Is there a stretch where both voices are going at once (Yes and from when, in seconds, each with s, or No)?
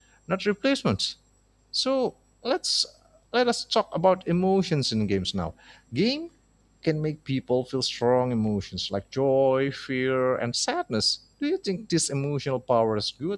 No